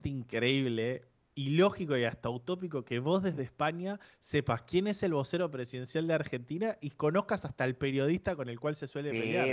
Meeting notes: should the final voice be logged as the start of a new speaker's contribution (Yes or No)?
Yes